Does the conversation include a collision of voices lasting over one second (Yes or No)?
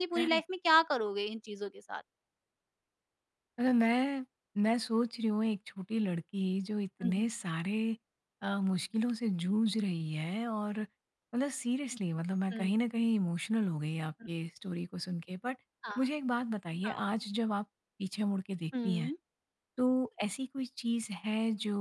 No